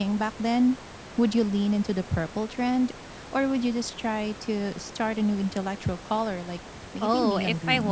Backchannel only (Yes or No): No